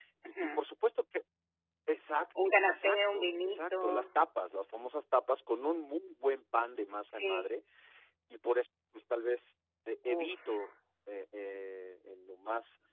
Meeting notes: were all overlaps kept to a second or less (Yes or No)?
No